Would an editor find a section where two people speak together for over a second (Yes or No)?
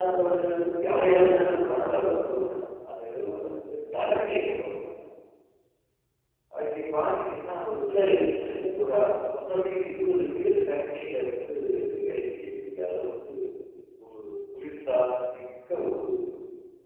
Yes